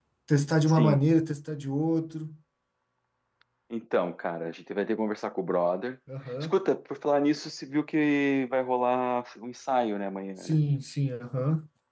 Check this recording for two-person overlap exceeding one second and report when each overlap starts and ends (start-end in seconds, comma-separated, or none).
none